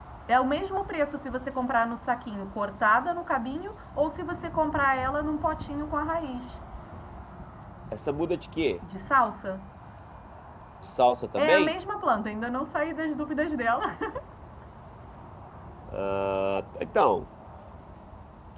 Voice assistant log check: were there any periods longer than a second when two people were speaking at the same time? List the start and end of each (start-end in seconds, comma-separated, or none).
none